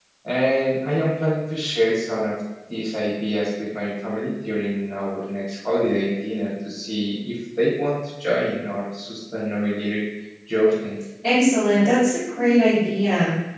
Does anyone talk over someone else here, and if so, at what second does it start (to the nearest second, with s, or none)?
none